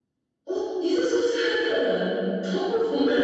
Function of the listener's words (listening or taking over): taking over